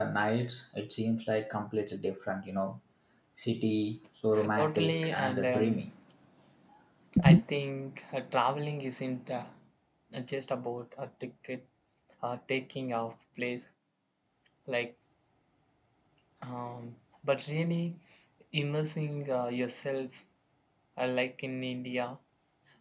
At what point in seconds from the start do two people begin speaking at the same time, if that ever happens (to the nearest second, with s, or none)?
4 s